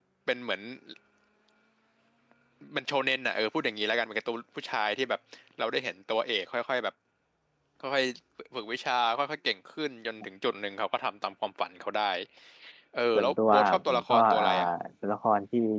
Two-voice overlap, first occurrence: 13.2 s

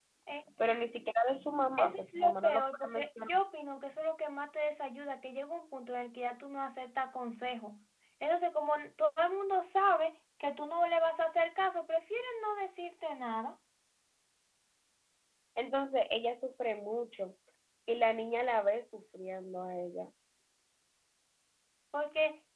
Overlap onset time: 1.8 s

